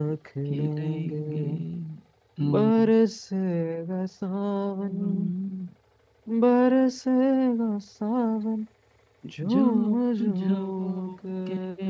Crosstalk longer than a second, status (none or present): present